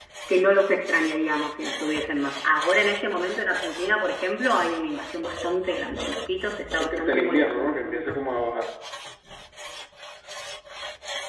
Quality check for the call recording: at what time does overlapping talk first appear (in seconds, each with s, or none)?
6.7 s